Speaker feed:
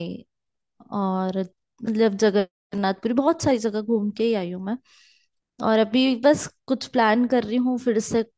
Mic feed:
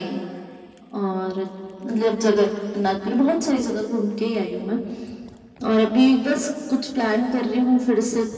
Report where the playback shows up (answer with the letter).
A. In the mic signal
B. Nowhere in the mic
A